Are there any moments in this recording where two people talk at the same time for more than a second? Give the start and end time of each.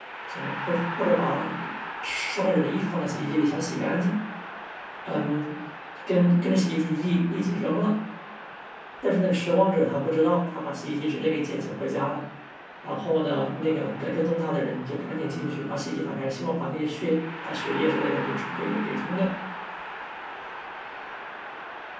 none

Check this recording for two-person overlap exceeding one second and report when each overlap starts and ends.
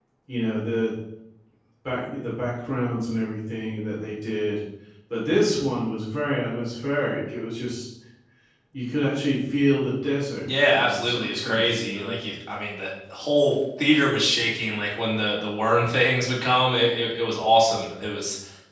10.7-12.2

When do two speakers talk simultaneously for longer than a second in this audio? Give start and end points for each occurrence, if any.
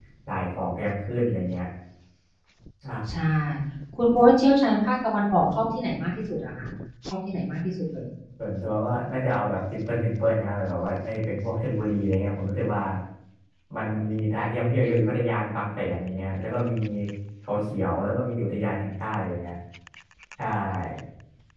none

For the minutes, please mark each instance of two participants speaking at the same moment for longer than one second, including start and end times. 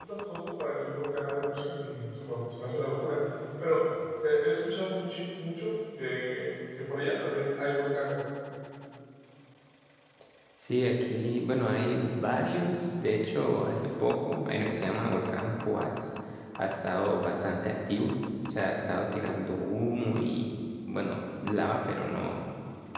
none

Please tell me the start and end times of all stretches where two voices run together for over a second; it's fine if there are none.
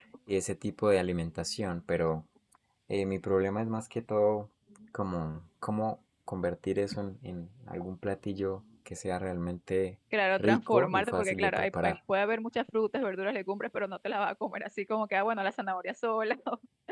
10.4-12.0

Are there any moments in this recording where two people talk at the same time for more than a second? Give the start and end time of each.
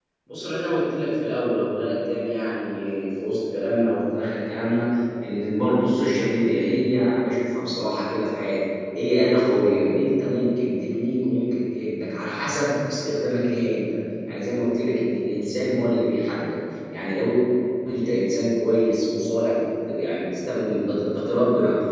none

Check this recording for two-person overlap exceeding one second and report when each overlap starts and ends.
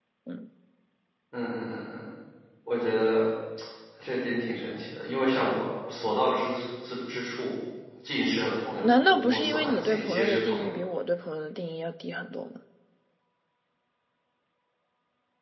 8.8-10.7

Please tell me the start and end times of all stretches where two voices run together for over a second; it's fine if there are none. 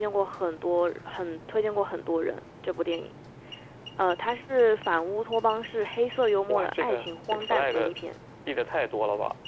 6.5-7.9

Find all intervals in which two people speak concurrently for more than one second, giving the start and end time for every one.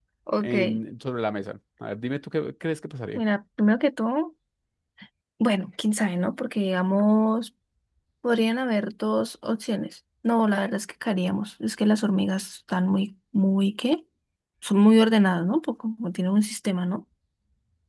none

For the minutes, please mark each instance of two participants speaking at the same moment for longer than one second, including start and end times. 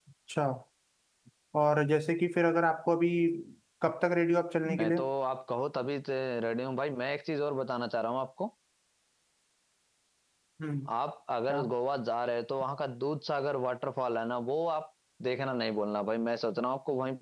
none

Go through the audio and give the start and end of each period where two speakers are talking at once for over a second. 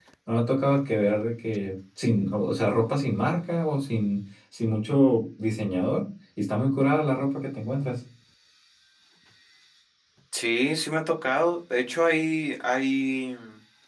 none

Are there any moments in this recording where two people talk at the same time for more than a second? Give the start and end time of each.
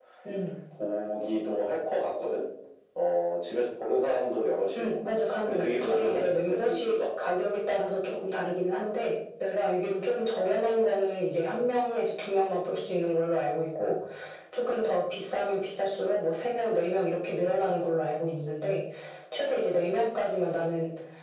5.5-7.0

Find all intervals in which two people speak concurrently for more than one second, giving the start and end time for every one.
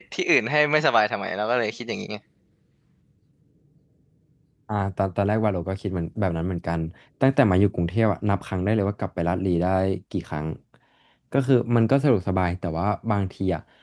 none

